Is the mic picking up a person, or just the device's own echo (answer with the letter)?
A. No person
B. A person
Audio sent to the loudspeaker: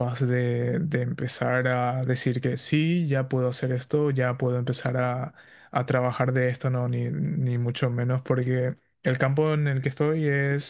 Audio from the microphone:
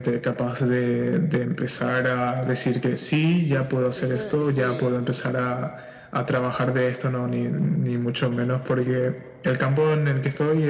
B